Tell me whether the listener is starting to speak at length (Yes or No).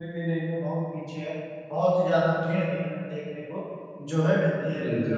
Yes